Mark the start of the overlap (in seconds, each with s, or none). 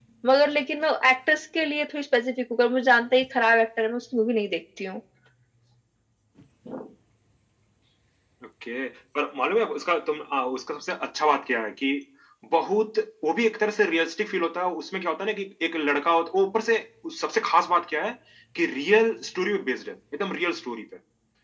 none